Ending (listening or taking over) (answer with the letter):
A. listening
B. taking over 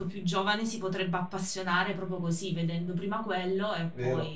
B